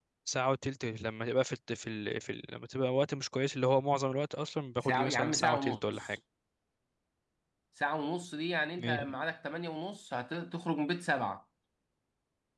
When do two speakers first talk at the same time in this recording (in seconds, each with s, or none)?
4.8 s